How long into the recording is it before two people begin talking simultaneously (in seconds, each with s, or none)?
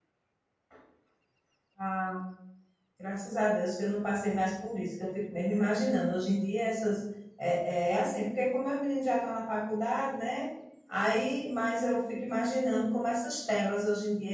none